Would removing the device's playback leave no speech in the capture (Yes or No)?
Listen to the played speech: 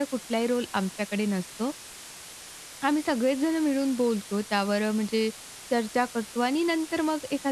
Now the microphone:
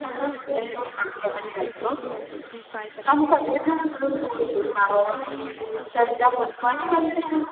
No